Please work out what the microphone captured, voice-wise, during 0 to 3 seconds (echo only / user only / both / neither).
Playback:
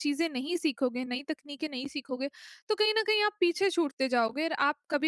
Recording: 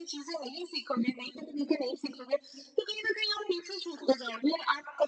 echo only